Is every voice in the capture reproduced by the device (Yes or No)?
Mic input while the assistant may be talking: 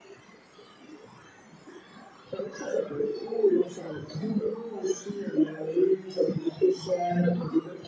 Yes